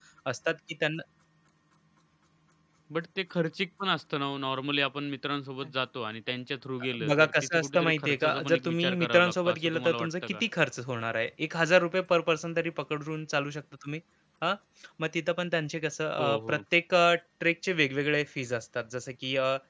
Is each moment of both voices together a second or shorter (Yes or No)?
No